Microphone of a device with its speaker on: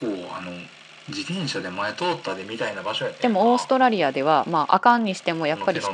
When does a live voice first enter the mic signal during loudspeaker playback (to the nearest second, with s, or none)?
3 s